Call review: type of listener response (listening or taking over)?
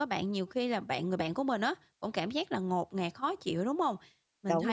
listening